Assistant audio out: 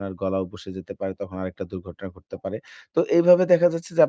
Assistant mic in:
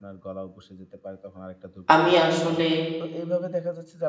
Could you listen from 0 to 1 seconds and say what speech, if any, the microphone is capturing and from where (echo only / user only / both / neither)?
echo only